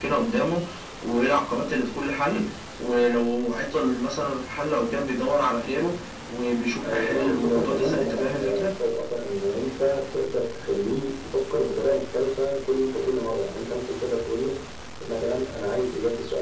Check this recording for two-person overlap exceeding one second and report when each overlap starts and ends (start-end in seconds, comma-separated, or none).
6.8-8.7